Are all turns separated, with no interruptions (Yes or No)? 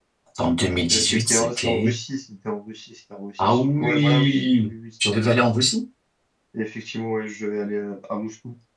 No